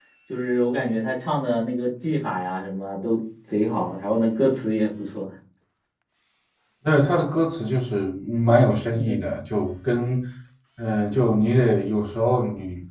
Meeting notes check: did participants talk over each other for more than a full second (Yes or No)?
No